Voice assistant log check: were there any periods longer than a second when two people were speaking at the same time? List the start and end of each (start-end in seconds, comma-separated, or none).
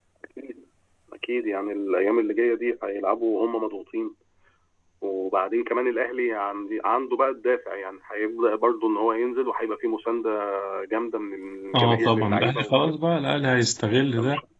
11.8-13.0